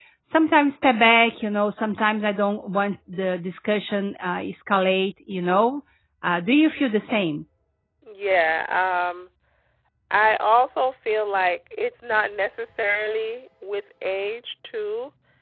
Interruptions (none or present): none